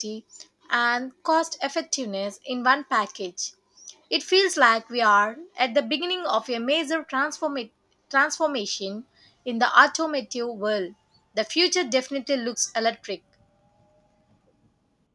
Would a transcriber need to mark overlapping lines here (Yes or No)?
No